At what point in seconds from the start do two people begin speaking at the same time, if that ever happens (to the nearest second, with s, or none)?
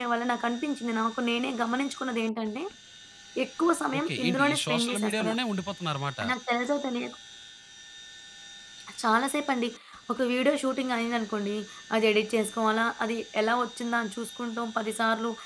4 s